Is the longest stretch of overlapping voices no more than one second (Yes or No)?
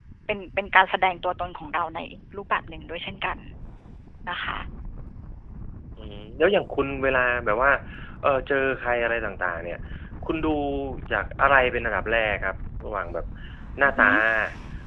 Yes